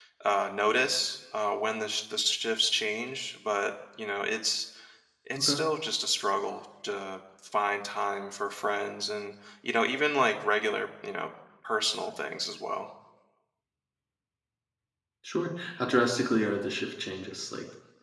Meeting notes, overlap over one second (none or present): none